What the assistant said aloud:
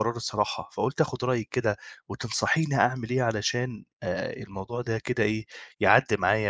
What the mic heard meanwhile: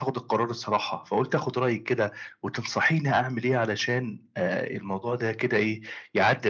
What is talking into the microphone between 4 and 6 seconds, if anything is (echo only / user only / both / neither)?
echo only